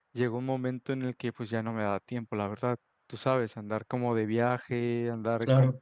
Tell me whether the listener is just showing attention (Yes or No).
Yes